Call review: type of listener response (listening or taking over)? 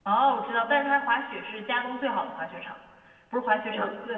listening